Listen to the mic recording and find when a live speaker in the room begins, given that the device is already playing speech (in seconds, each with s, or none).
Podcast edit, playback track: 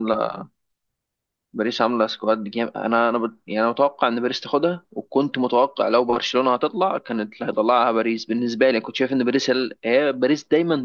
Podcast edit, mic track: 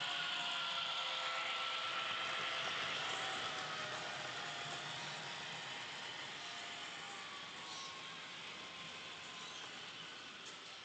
none